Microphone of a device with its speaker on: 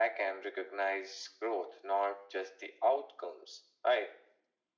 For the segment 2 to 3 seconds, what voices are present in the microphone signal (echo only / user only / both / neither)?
echo only